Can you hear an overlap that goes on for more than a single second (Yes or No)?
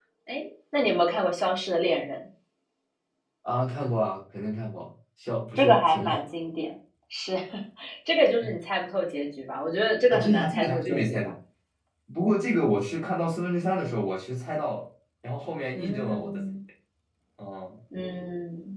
Yes